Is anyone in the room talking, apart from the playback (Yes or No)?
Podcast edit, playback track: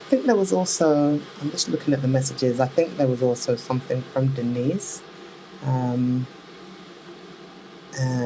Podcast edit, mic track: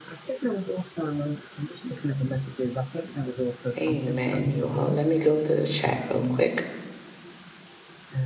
Yes